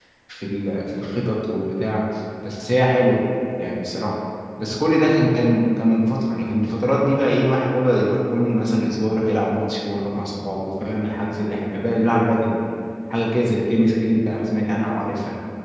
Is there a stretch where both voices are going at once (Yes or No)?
No